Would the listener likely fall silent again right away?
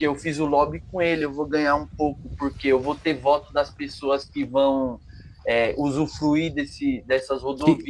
No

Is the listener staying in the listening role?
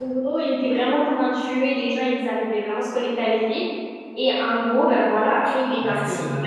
No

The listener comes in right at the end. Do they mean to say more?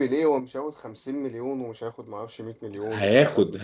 Yes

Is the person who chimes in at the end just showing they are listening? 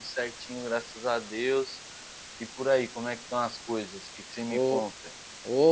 No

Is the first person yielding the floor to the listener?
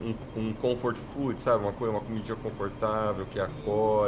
Yes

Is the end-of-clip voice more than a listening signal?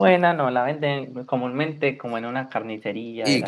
Yes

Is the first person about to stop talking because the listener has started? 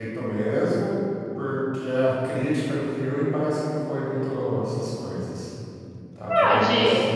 Yes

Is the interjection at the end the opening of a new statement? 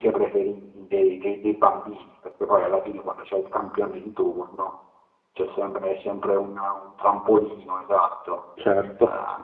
No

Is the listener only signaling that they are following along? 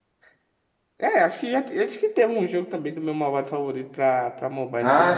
No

